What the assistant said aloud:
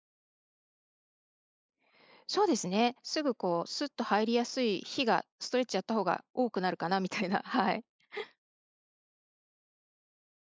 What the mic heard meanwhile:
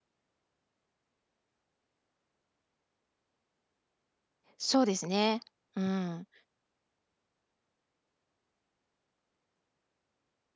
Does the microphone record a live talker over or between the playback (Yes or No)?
Yes